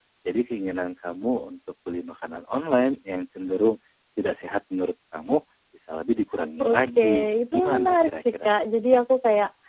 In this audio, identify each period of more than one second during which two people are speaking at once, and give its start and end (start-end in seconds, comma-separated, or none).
6.6-8.5